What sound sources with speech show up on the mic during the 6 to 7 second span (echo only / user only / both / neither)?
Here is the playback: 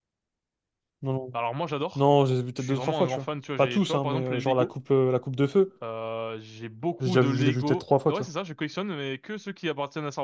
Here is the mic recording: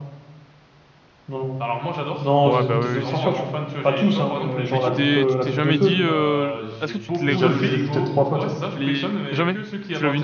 both